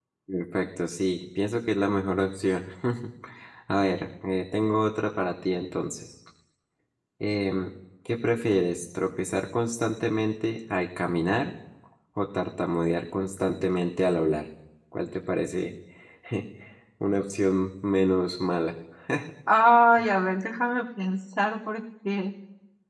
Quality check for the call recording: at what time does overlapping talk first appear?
none

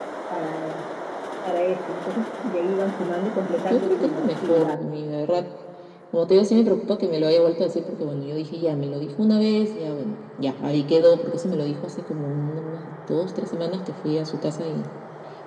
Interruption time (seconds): 3.6 s

